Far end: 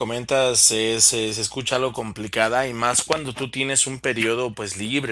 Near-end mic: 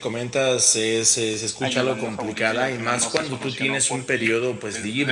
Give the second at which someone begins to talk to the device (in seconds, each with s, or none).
1.6 s